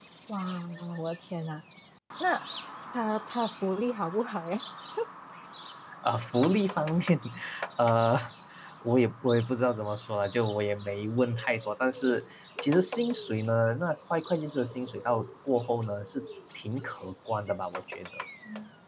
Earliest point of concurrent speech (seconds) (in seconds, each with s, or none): none